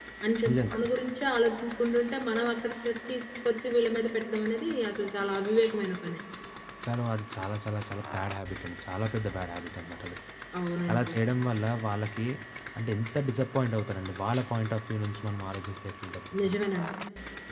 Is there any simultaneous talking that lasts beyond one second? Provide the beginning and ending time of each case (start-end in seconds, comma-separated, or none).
none